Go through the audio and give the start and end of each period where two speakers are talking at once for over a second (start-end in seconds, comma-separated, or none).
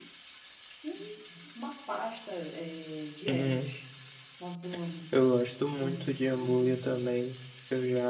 5.8-7.1